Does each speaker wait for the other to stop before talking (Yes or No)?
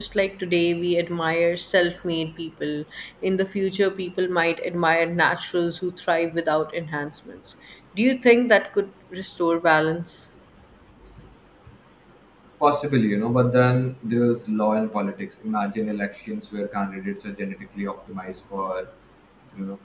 Yes